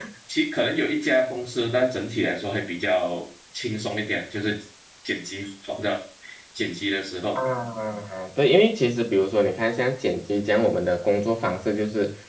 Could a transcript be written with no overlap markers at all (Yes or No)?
Yes